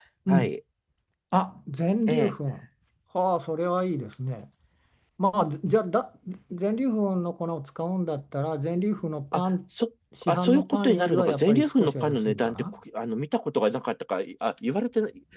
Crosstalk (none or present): present